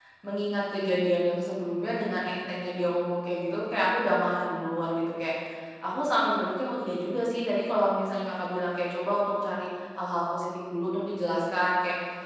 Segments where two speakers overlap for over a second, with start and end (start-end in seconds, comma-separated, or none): none